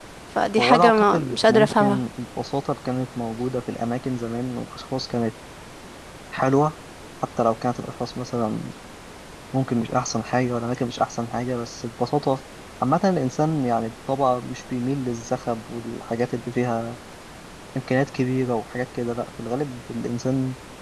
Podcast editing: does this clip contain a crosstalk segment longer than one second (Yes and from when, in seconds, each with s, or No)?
Yes, from 0.6 s